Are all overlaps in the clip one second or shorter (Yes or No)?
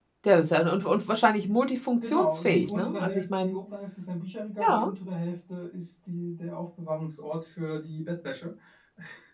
No